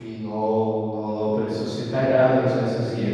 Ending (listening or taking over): taking over